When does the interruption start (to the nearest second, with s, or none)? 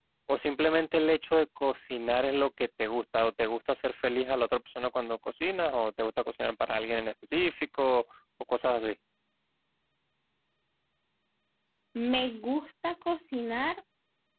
none